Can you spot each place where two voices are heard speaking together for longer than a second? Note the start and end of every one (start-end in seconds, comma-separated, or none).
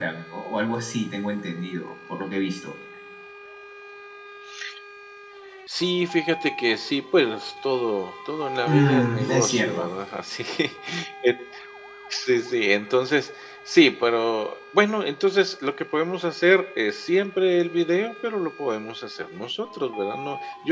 8.6-9.9